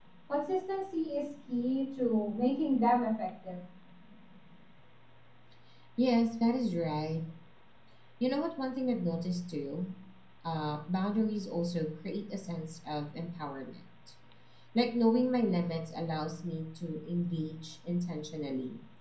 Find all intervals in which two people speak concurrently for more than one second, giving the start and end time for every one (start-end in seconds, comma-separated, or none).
none